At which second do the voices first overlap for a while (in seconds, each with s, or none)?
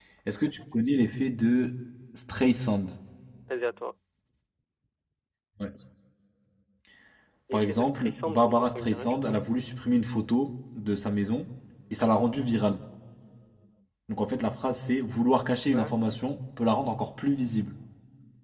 7.5 s